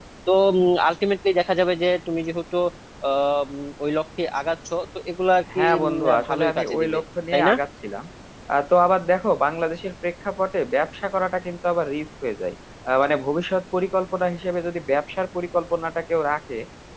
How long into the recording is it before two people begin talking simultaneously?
5.5 s

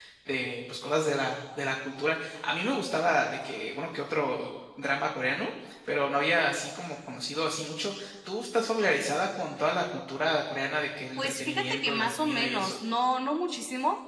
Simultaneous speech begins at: 11.2 s

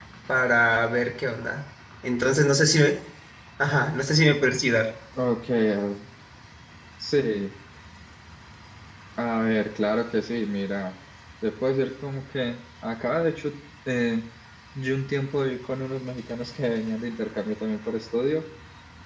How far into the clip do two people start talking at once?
none

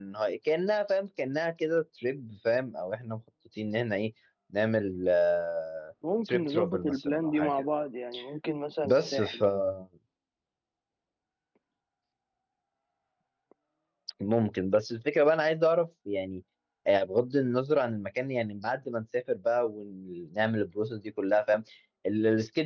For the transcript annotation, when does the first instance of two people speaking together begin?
6.2 s

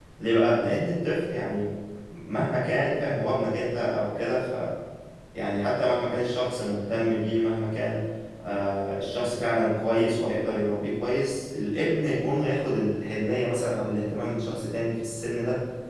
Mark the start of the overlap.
none

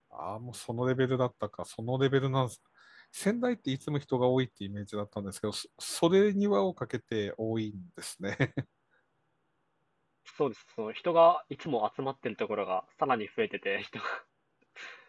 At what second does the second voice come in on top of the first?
none

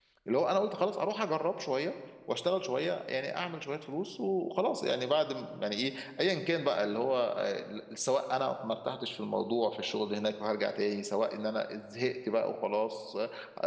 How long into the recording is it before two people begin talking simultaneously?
none

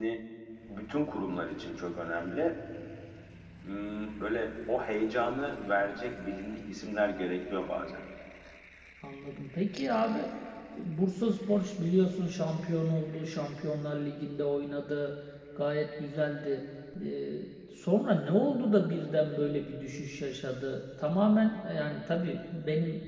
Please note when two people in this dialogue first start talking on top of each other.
none

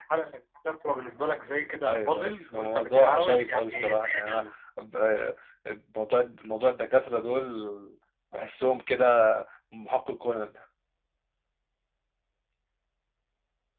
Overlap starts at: 1.8 s

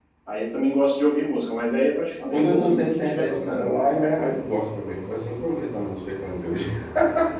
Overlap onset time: 2.3 s

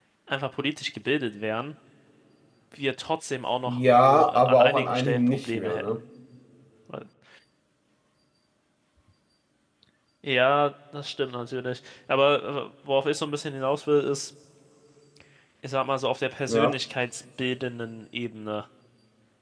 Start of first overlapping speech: 3.7 s

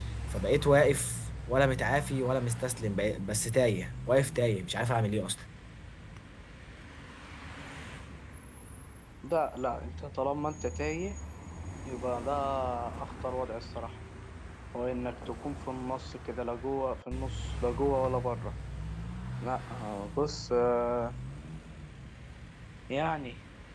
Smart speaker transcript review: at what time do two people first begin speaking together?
none

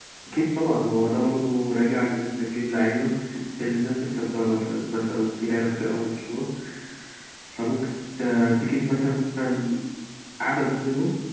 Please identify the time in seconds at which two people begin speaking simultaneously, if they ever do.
none

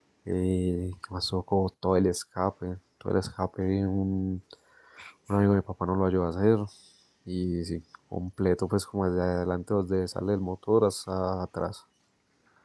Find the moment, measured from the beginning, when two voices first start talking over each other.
none

